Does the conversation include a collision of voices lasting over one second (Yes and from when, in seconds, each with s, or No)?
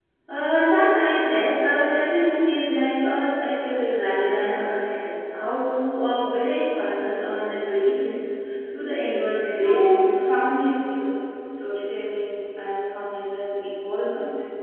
No